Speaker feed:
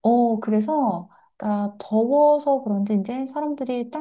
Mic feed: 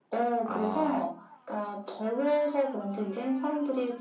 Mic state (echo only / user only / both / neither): both